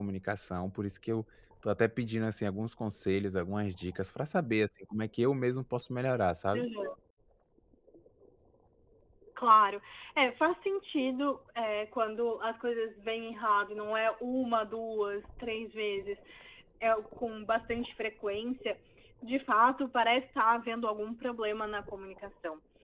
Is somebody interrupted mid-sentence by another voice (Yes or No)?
No